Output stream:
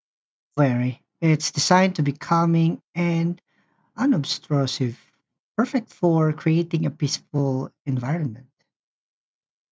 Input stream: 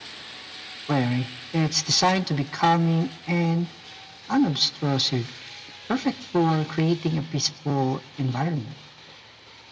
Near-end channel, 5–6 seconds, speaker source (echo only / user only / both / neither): echo only